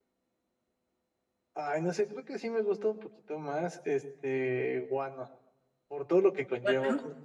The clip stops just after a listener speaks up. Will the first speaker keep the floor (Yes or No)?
Yes